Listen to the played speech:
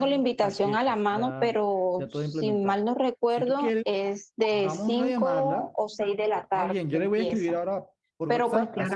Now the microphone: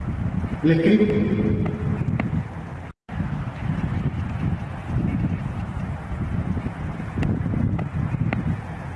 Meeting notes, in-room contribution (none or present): present